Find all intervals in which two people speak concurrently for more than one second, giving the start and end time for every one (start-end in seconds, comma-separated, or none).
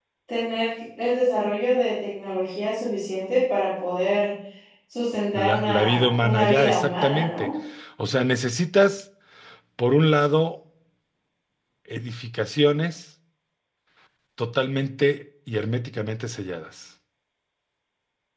5.4-7.5